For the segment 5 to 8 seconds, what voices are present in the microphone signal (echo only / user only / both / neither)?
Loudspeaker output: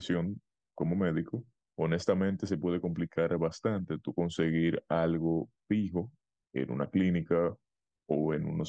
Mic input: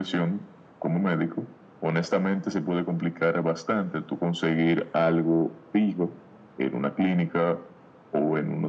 echo only